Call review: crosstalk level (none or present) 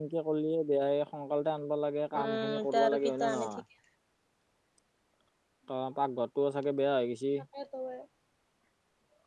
present